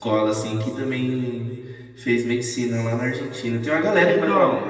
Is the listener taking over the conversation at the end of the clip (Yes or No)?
Yes